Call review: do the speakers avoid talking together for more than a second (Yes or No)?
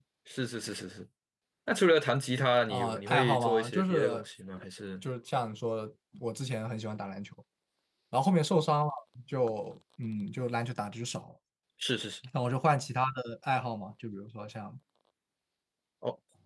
No